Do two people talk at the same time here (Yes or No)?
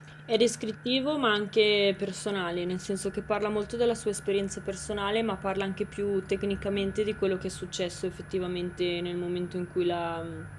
No